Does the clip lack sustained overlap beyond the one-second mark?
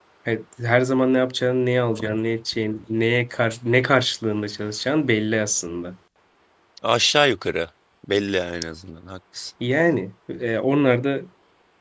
Yes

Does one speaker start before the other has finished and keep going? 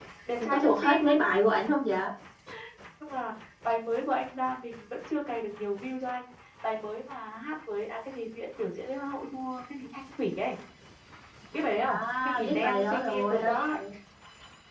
Yes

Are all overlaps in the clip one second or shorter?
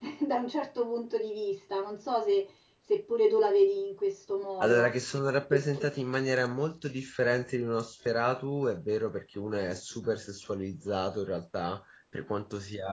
Yes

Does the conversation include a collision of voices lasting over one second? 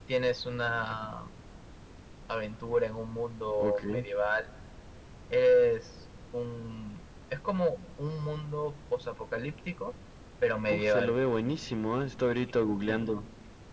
No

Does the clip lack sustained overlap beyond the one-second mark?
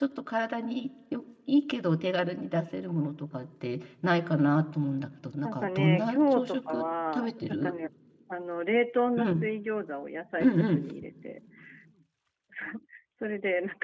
No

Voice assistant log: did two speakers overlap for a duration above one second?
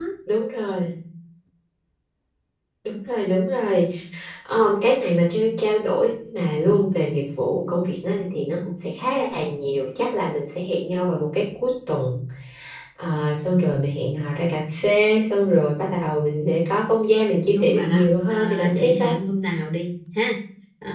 Yes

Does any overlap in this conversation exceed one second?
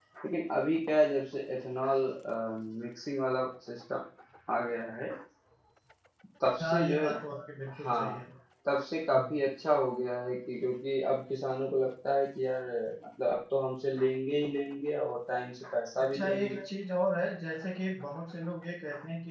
Yes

